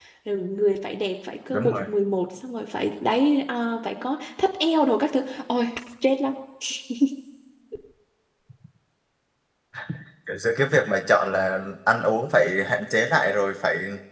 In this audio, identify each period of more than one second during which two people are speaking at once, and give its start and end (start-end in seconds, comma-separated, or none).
none